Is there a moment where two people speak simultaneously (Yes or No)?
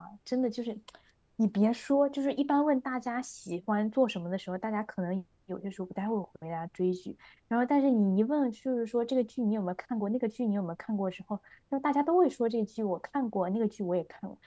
No